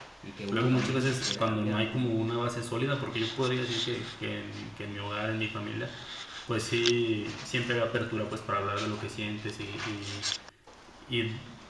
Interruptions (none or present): present